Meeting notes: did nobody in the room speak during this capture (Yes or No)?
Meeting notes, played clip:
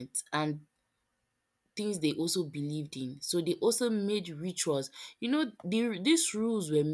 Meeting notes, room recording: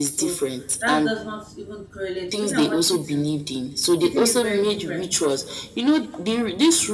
No